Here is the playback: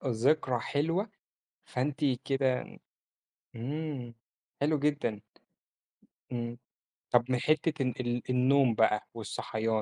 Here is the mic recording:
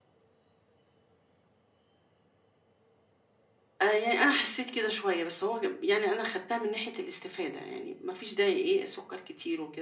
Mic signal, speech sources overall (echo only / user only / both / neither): user only